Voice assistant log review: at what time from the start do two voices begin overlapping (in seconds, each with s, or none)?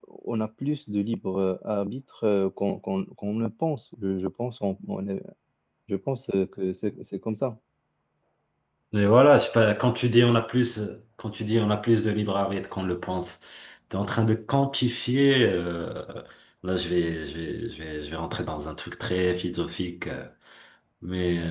none